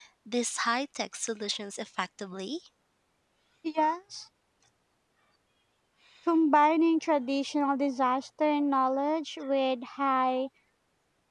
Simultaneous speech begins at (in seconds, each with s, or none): none